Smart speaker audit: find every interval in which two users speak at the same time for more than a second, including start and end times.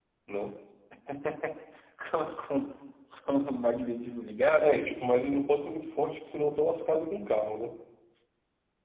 none

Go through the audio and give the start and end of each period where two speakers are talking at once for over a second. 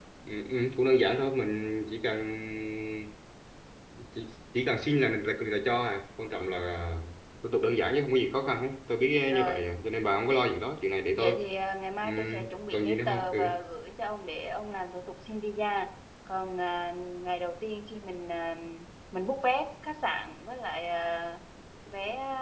12.0-13.6

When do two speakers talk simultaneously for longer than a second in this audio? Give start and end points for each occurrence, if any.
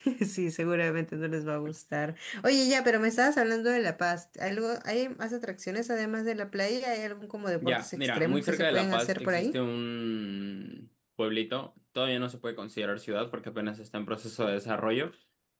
7.6-9.6

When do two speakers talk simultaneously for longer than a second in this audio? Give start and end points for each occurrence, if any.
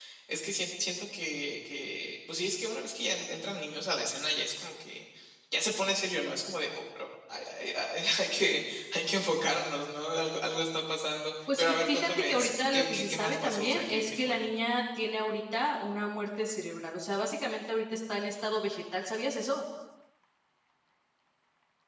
11.6-14.4

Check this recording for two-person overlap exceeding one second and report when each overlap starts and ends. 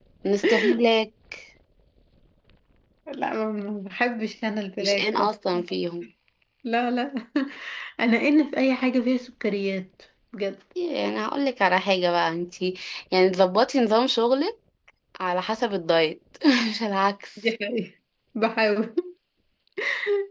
none

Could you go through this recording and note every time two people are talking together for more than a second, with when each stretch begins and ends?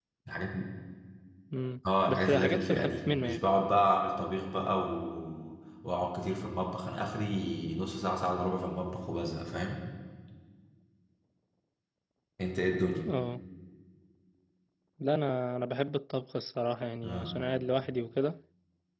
2.1-3.4

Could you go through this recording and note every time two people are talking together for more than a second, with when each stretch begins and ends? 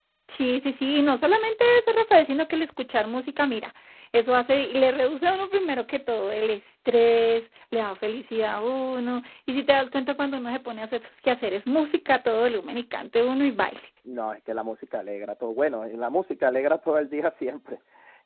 none

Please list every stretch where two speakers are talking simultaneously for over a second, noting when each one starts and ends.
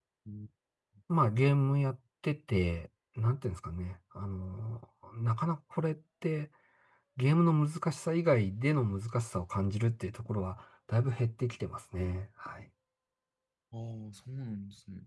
none

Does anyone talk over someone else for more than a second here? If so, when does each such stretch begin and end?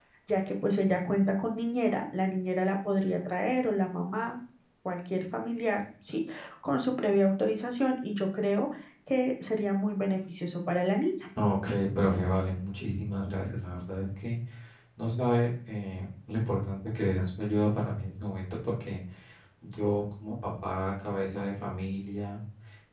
none

